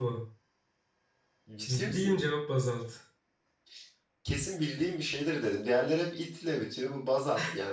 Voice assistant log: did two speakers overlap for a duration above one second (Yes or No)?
No